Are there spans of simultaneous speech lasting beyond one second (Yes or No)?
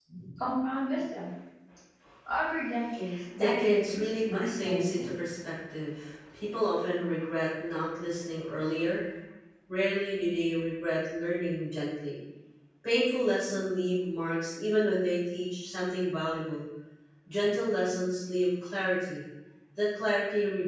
Yes